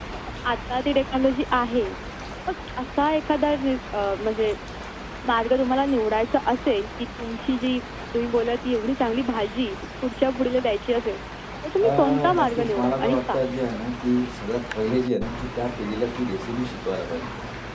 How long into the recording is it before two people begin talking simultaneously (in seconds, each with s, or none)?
11.8 s